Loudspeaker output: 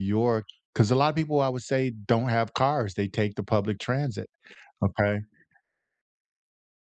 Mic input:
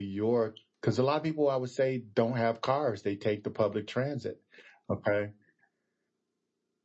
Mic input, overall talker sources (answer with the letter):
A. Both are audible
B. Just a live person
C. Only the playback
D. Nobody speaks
C